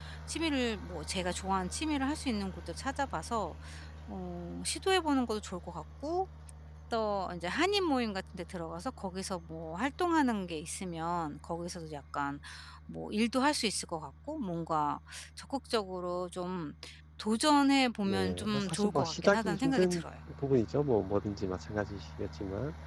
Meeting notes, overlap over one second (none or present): present